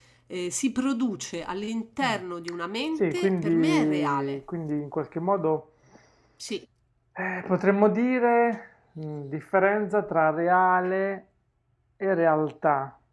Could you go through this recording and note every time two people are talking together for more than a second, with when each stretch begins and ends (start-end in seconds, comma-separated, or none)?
3.0-4.4